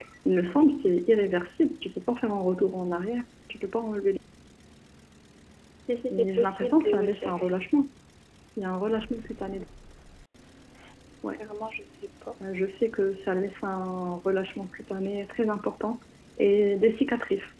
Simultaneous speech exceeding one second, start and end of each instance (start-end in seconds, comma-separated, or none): 6.1-7.5